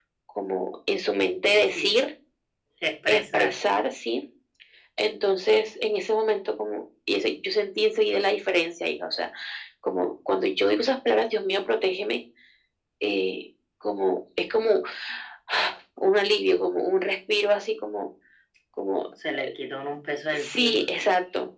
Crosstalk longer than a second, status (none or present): none